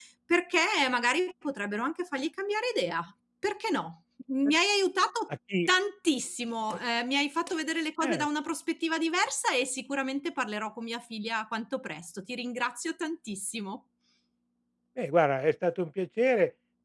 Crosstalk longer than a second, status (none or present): none